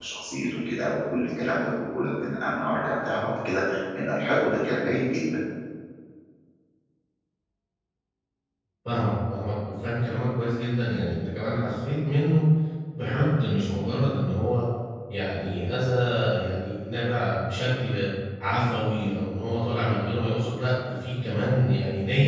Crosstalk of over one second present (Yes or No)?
No